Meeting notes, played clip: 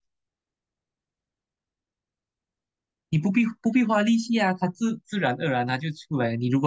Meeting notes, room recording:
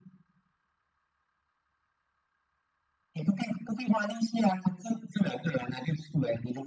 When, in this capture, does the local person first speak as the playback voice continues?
none

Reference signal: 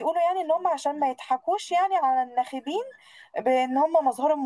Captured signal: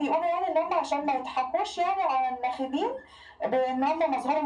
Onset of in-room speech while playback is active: none

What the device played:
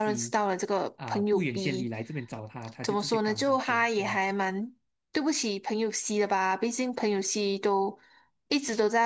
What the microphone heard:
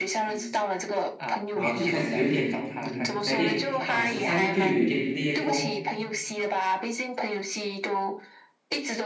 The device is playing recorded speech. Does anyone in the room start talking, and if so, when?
1.5 s

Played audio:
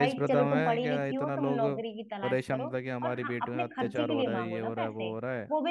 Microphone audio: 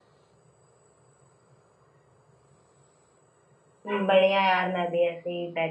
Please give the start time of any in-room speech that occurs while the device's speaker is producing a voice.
3.9 s

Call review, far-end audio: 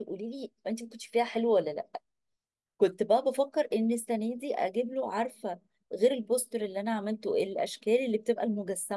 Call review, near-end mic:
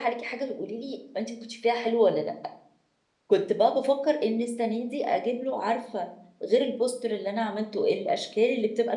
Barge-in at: none

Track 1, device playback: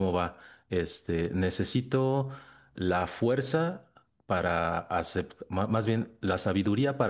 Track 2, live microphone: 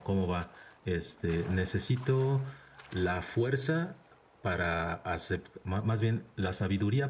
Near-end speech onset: none

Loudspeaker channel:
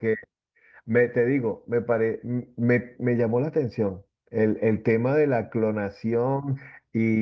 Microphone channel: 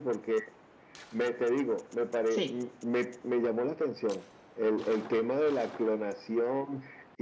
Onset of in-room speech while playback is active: 2.3 s

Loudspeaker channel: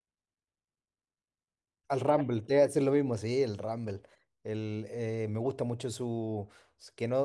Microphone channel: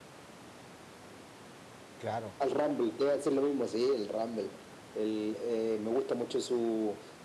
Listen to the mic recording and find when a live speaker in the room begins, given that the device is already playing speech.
2.0 s

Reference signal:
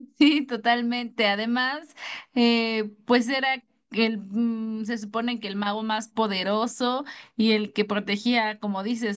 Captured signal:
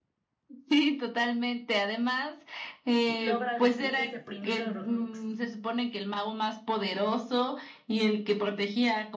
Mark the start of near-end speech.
3.0 s

